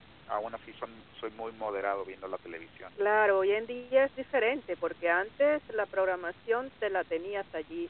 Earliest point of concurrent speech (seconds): none

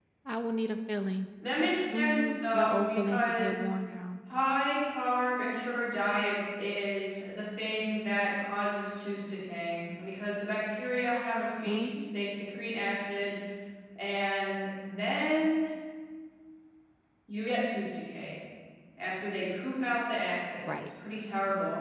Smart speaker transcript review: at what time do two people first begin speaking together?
2 s

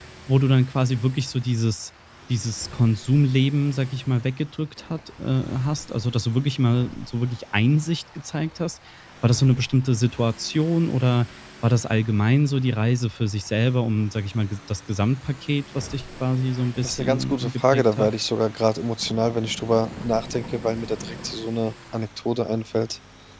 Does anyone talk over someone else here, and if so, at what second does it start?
17 s

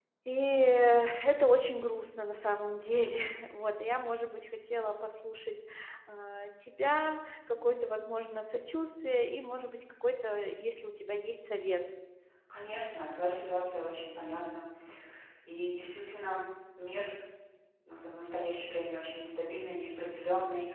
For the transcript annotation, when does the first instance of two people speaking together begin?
none

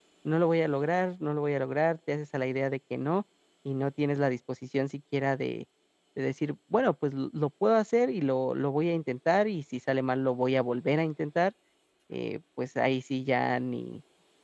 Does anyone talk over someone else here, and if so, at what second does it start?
none

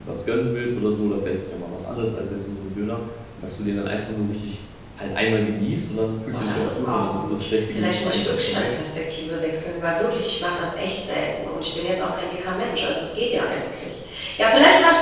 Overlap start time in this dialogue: 6 s

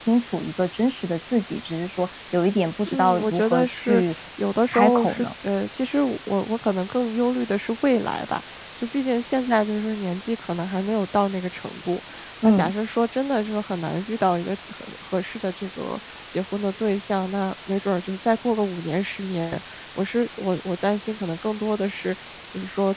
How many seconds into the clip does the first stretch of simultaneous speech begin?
3 s

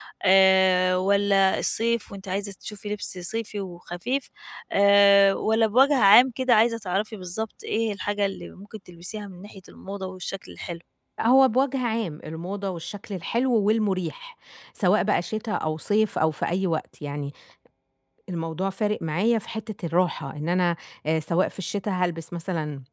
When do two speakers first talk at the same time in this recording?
none

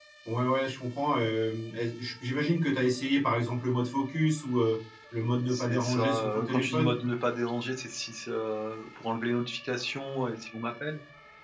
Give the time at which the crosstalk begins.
5 s

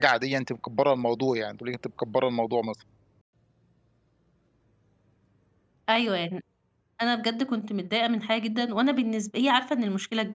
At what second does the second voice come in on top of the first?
none

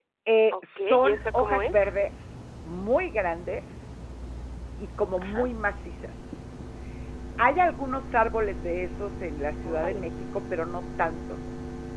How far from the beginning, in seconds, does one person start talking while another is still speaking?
1 s

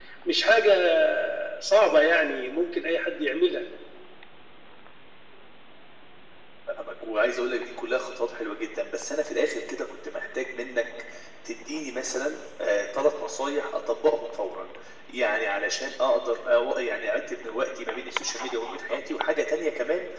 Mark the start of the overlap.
none

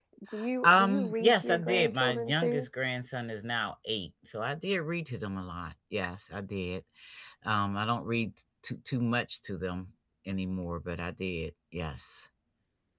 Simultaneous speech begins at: 1 s

